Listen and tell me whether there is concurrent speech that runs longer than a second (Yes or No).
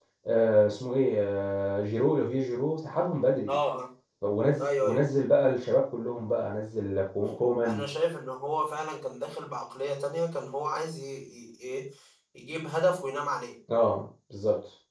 No